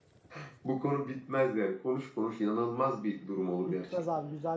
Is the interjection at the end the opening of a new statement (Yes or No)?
Yes